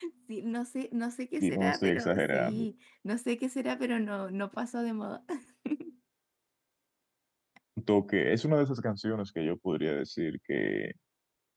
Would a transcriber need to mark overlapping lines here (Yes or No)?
Yes